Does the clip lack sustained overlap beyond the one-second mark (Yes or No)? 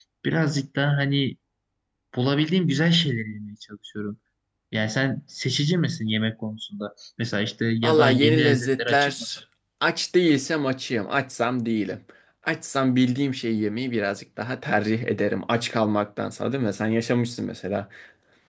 No